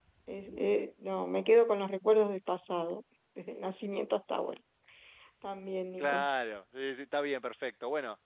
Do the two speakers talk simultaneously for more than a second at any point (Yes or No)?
No